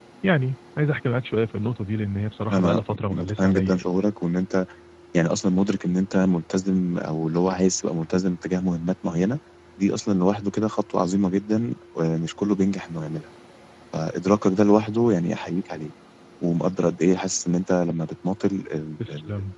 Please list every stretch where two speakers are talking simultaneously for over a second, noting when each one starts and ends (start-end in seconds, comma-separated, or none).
2.5-3.9